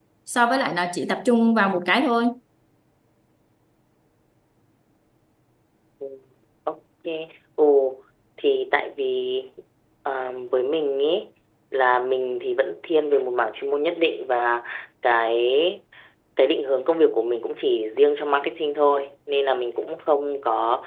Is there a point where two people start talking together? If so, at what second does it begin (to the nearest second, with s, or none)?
none